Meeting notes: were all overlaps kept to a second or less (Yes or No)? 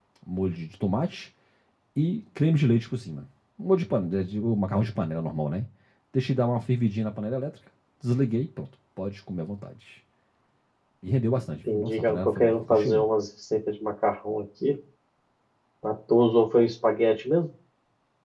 No